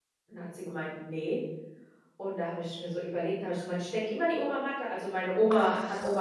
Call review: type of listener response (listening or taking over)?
listening